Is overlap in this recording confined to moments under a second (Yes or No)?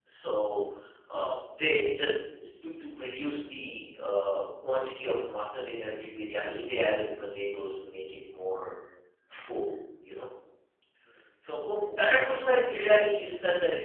No